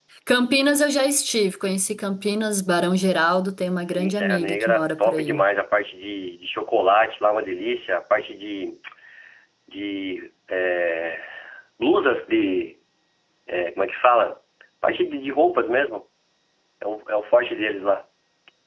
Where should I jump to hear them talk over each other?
3.9 s

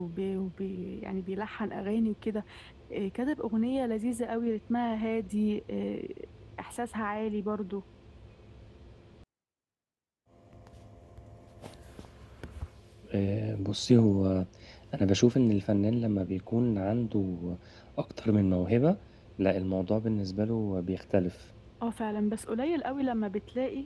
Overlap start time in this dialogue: none

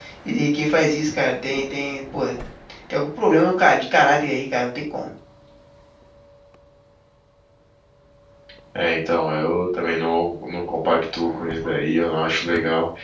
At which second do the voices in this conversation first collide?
none

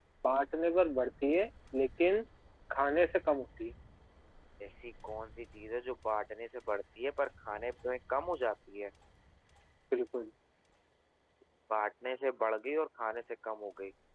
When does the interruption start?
none

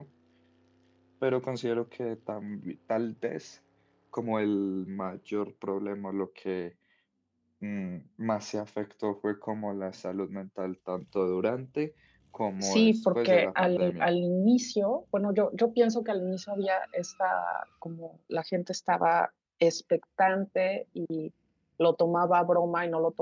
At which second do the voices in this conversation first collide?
12.6 s

